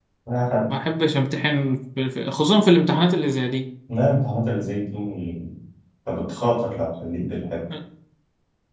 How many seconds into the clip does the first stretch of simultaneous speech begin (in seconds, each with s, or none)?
none